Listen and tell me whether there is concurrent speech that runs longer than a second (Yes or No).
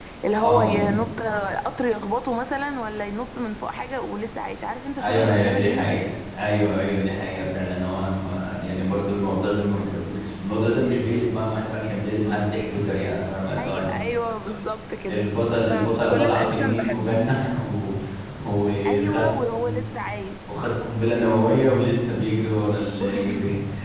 Yes